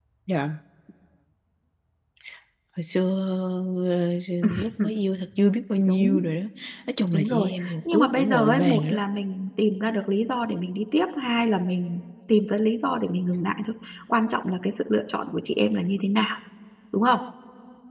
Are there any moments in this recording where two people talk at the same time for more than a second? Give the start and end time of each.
7.1-9.0

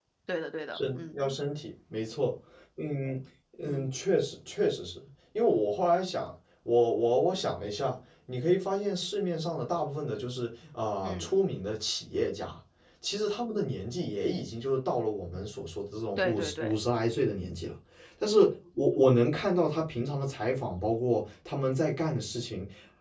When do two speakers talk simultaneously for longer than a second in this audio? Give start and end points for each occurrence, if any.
none

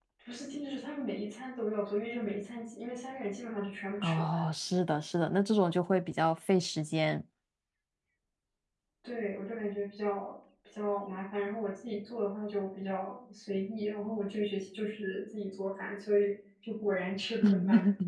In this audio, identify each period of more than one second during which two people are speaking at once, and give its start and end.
none

